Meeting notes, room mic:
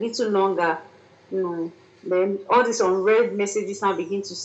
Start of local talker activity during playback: none

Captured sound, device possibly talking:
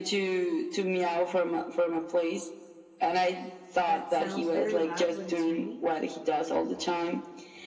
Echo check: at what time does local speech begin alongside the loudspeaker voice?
3.8 s

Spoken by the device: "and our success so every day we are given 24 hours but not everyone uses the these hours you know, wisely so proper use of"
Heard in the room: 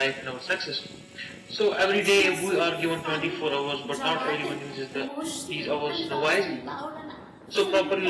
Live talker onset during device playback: 1.9 s

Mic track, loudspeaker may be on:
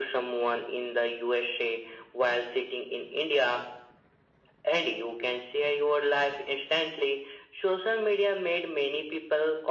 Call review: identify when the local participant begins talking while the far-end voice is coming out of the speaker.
none

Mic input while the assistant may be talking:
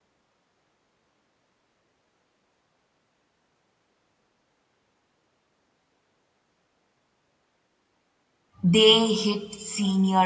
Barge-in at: 8.6 s

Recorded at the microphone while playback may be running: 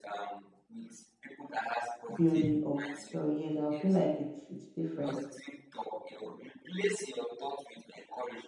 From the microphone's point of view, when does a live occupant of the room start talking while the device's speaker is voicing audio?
2.1 s

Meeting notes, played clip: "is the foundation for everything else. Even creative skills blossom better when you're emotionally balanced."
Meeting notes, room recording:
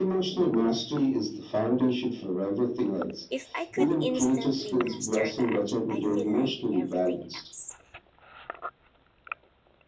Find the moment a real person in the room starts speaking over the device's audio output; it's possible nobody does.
3.3 s

